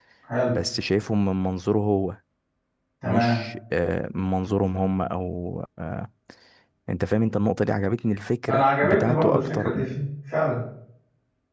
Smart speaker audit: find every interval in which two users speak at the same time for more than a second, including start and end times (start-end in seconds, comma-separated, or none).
8.5-10.1